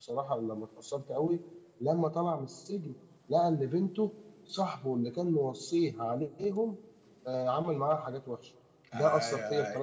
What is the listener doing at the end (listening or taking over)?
taking over